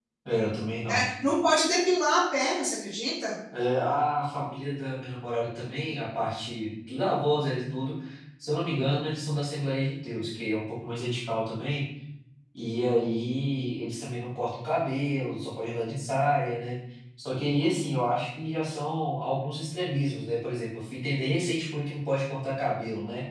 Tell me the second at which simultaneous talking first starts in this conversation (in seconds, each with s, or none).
none